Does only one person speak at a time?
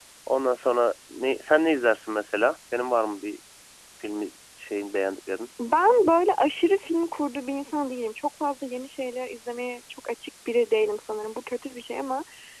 Yes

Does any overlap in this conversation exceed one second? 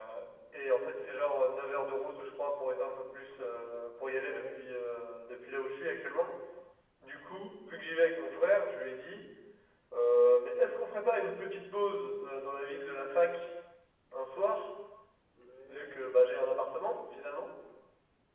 Yes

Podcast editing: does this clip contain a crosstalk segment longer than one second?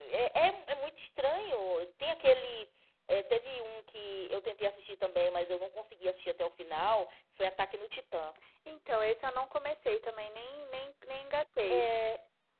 No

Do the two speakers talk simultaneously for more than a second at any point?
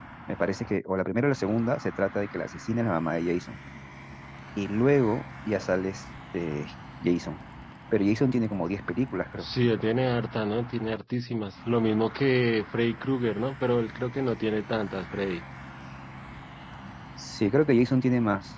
No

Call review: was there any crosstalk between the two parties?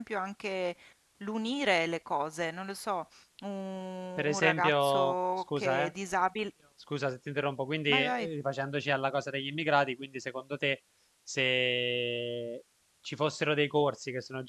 Yes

